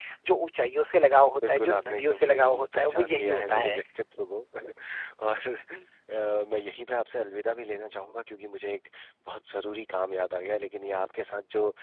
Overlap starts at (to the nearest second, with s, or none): 1 s